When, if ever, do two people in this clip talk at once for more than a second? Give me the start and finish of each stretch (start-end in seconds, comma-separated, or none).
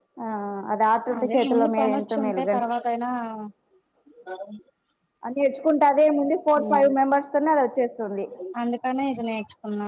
1.2-2.5